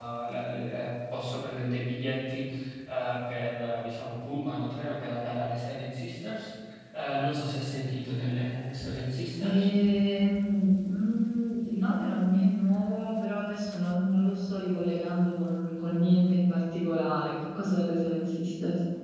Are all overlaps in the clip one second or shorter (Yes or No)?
Yes